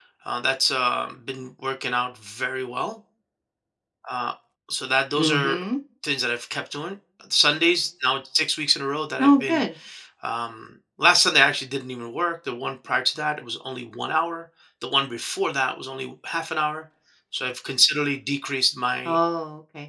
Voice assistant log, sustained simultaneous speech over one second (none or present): none